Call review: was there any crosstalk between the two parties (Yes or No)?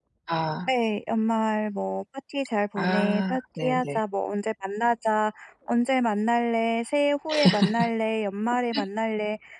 Yes